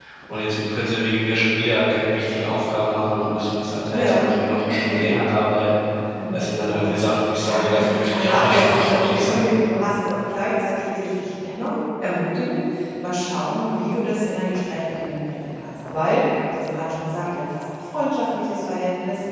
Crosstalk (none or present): present